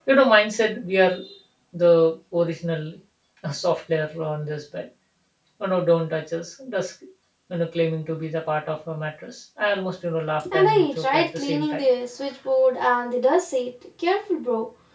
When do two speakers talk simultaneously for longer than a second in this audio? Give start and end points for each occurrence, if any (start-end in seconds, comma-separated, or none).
10.5-11.9